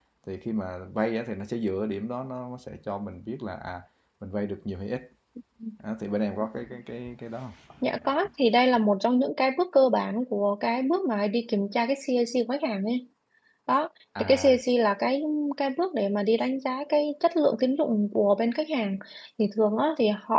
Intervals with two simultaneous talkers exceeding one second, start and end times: none

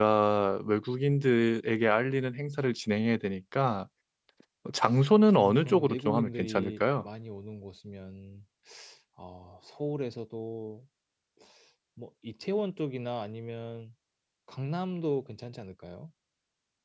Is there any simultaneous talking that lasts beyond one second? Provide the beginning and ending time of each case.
5.3-7.1

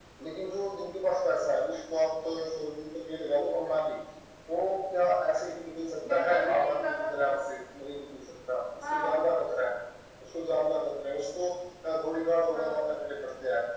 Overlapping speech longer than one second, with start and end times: 6.1-7.3

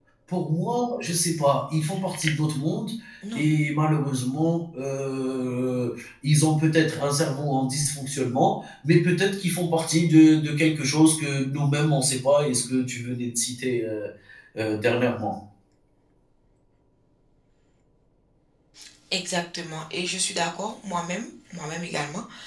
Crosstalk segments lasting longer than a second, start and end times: none

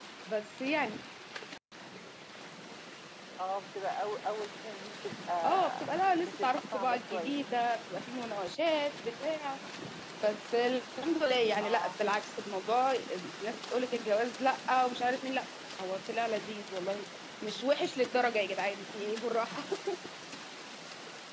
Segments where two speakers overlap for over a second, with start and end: 5.4-7.4

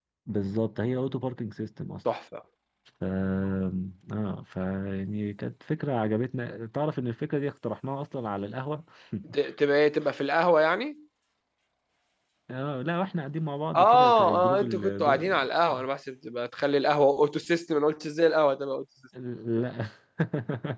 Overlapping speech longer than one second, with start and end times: 13.7-15.2

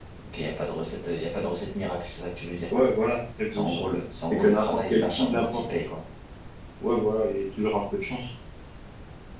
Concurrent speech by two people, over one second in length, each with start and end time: 4.3-5.6

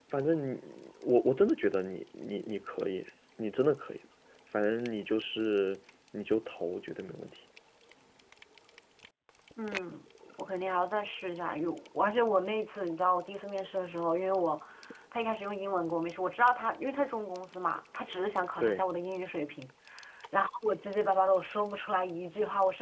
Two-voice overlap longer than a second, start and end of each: none

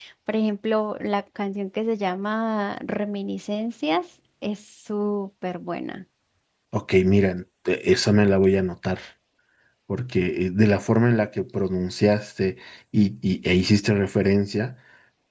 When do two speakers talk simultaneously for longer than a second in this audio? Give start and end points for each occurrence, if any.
none

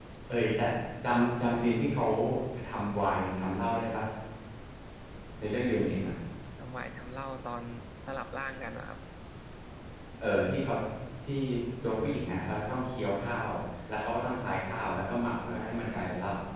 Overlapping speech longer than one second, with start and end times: none

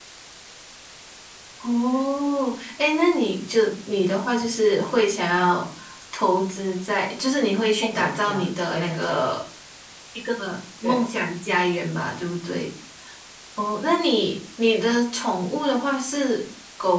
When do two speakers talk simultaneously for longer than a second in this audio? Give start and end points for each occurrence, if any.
7.8-9.2

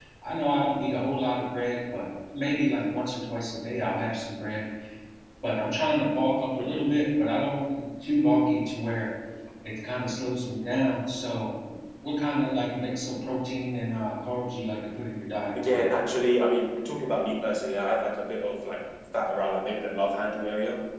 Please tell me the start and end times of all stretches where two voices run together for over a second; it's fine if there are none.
none

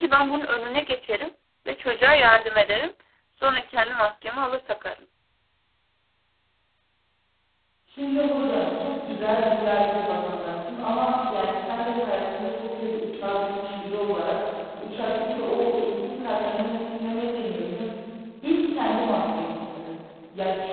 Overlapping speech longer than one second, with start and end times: none

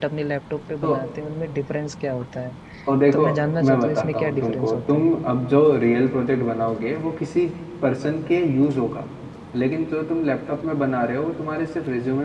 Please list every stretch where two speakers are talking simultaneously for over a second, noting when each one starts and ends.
3.6-5.1

